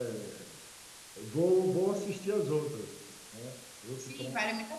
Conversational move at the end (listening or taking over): taking over